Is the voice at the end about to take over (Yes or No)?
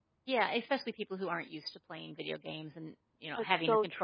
Yes